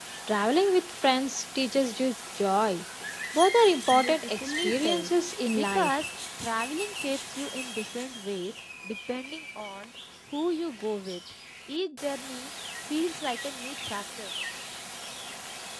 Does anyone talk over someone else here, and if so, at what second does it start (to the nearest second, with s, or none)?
4 s